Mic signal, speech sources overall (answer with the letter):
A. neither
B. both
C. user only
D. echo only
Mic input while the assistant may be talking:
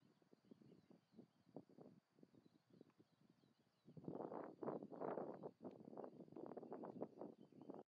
A